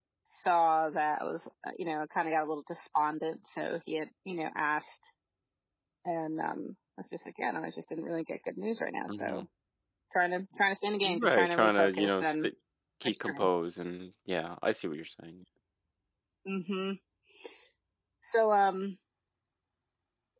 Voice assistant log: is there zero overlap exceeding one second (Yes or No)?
No